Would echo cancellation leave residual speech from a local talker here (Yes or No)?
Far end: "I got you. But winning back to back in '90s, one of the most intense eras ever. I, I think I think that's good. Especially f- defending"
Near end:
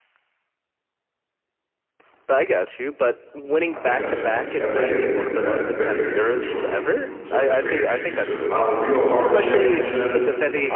Yes